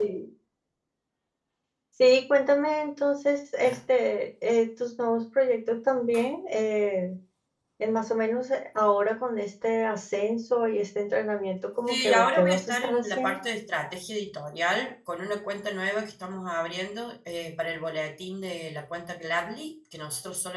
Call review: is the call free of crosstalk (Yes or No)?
No